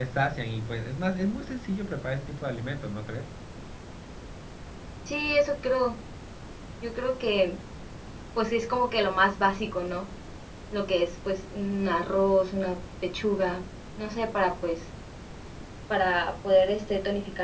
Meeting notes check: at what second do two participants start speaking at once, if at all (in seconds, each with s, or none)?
none